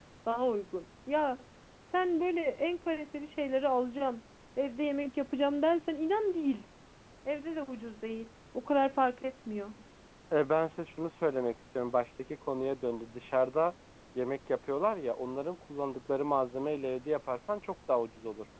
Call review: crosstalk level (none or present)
none